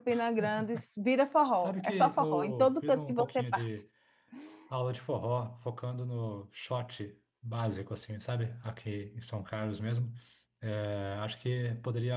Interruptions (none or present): present